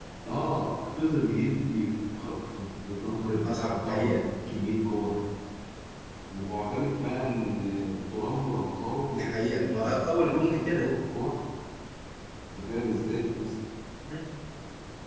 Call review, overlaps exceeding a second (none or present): present